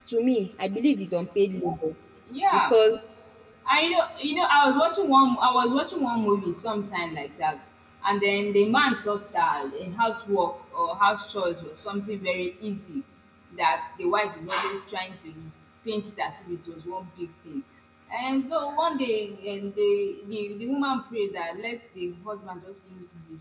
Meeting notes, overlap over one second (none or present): none